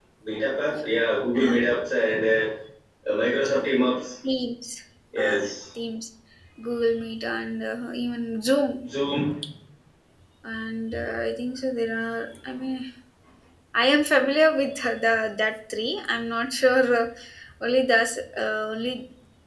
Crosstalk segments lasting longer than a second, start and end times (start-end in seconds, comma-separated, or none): none